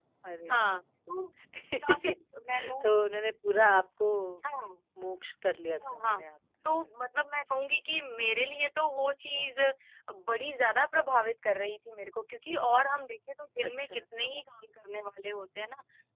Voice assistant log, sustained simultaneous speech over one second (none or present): none